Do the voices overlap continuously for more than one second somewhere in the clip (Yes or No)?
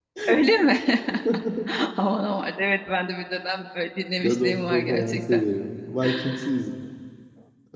Yes